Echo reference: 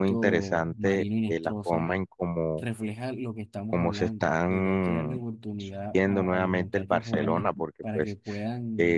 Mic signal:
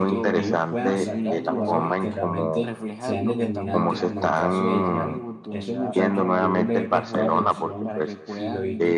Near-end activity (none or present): present